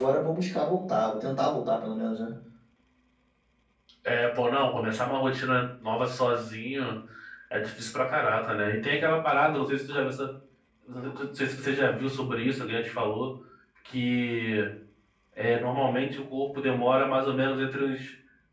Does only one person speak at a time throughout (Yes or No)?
Yes